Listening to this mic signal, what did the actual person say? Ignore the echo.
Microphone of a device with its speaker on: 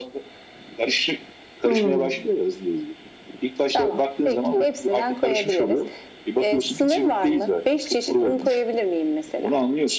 Hmm,

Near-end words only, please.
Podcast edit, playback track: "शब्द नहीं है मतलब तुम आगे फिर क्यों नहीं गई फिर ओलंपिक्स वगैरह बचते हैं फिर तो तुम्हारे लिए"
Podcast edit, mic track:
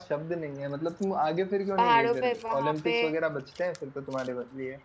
पहाड़ों पे वहां पे

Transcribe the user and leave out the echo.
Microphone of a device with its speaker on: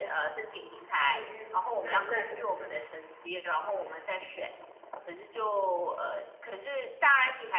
嗯嗯嗯，那那都一样

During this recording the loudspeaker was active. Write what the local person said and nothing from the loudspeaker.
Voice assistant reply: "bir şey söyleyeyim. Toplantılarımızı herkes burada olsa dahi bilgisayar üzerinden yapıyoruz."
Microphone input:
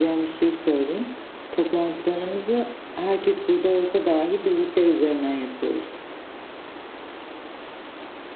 none

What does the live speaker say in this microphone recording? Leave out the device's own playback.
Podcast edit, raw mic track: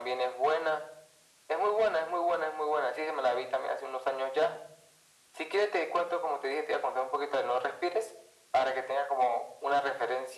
none

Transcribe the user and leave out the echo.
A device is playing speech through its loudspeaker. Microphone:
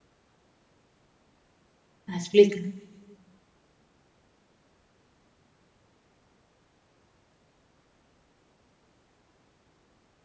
Ah, explica.

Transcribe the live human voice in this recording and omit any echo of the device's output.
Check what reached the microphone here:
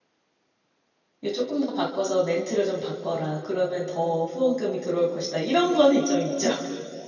이거 조금 더 바꿔서 멘트를 좀 바꿔라. 그러면 더 후원금이 들어올 것이다. 이런 거는 좀 있죠.

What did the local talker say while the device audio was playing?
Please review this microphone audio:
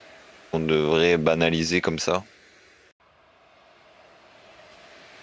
qu'on devrait banaliser comme ça.

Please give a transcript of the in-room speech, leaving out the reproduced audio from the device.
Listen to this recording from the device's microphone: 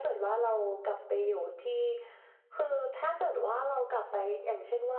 none

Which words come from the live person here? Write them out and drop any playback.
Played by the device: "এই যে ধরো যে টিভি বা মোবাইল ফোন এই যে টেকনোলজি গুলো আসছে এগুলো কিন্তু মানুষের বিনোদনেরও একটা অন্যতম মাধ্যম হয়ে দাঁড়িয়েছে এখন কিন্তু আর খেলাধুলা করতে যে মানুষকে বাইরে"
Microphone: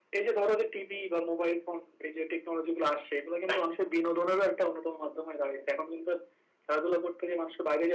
none

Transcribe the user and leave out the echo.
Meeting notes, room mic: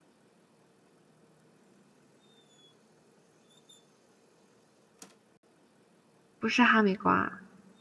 不是哈密瓜，

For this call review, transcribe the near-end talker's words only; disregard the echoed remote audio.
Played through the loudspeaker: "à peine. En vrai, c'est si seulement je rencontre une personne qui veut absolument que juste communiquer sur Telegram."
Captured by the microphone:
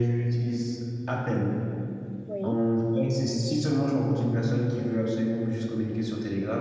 oui,

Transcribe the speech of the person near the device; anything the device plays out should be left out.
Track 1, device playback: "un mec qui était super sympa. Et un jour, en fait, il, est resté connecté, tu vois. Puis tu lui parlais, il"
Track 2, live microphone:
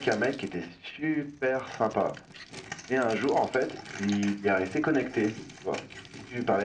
none

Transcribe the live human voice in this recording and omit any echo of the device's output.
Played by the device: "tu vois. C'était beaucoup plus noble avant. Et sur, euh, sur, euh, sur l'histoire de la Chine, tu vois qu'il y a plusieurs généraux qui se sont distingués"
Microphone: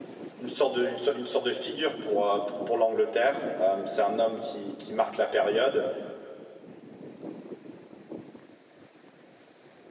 une sorte de une, so, une, sorte de figure pour euh, pour, pour l'Angleterre. Euh, c'est un homme qui, qui, marque la période

